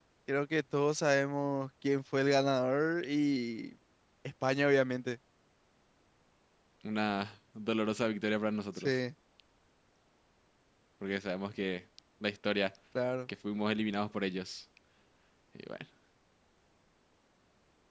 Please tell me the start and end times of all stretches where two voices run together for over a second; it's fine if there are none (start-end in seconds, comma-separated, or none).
none